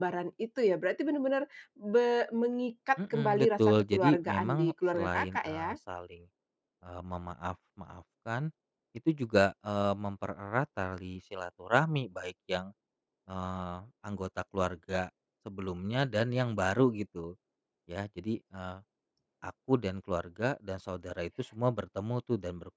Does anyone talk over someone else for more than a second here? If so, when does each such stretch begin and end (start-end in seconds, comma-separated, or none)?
3.0-5.7